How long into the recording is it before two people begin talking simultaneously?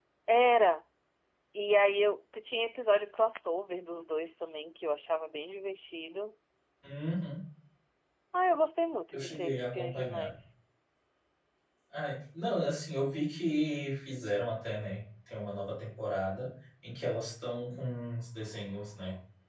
9 s

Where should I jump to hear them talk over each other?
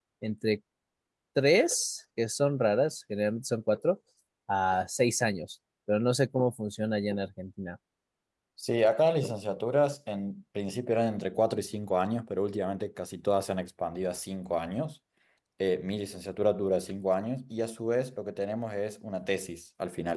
none

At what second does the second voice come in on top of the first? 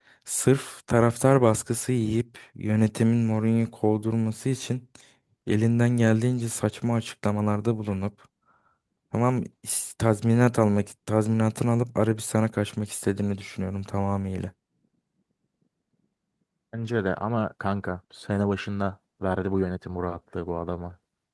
none

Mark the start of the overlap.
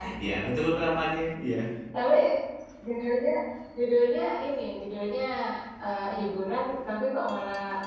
none

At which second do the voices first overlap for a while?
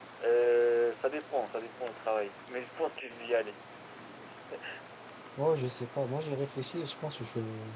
none

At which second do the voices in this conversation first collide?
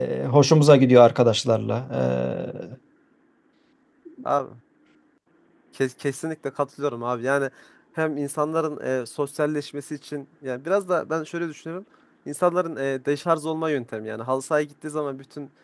none

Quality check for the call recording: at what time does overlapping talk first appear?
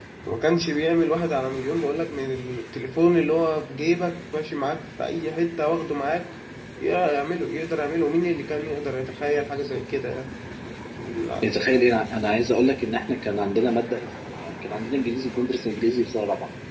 none

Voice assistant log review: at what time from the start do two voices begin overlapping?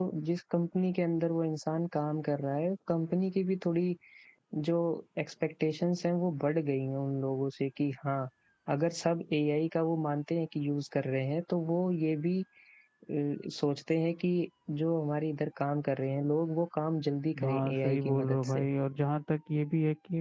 17 s

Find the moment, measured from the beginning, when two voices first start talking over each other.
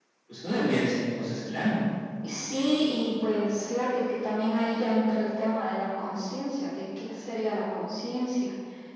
none

